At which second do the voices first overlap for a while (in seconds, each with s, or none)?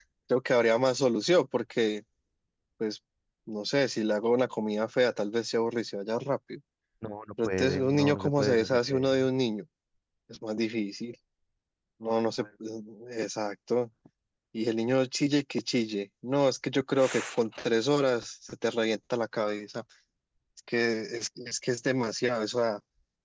7.4 s